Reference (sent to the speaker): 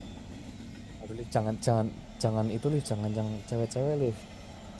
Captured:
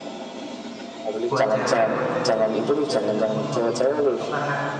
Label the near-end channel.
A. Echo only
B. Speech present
B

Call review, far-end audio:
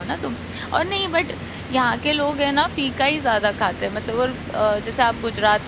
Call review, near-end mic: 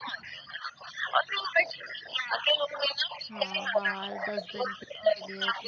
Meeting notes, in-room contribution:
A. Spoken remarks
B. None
A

